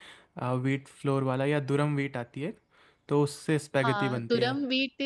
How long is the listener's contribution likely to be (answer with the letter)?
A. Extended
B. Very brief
A